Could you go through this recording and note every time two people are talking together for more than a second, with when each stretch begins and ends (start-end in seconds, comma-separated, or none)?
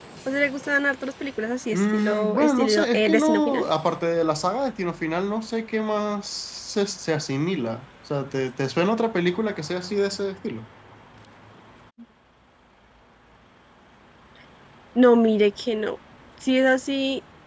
1.7-3.6